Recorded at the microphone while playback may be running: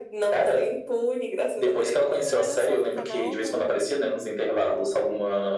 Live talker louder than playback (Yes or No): No